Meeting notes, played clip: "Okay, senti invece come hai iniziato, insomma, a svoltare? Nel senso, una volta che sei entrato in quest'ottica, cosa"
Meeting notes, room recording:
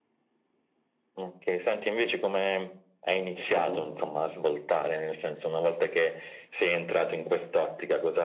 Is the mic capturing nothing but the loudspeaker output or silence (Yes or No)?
No